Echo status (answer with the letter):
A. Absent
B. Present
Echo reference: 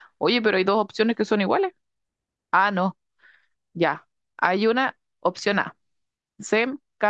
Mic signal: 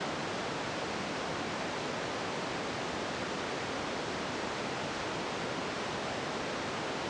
A